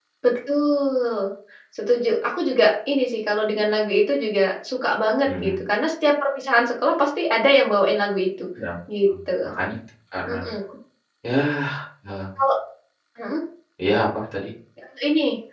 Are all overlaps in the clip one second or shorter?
Yes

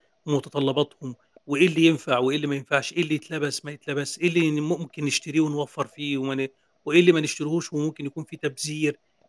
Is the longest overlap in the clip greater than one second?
No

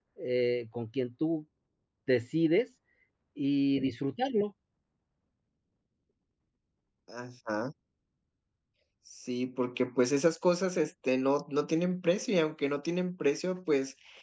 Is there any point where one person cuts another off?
No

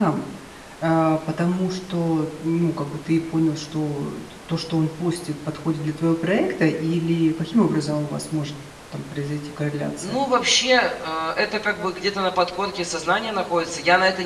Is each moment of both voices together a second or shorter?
Yes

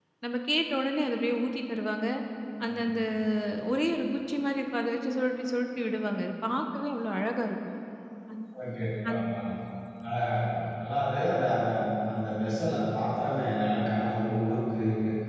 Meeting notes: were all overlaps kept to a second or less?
Yes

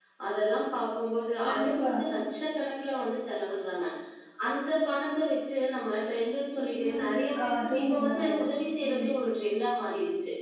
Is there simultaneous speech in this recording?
Yes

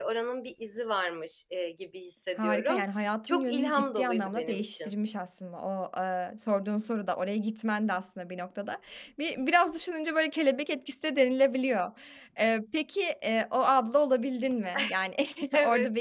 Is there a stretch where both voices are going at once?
Yes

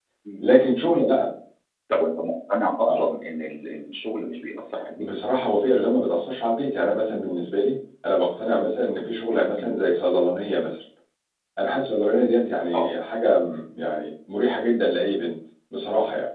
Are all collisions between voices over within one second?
Yes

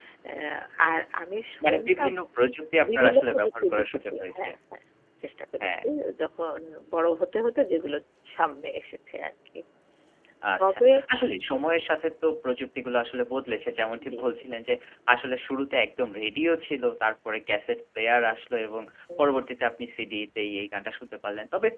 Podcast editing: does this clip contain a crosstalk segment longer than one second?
Yes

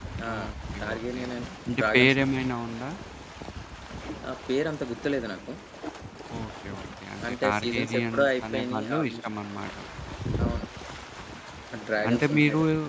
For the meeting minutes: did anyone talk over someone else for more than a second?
Yes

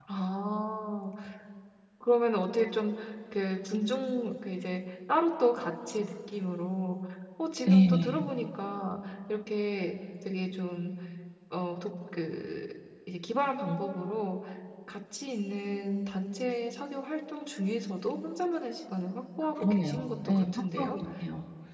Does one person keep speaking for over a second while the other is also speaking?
Yes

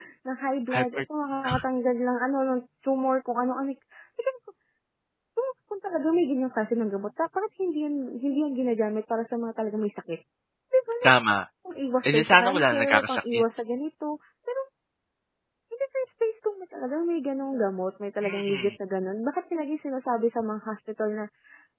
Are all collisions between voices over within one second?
No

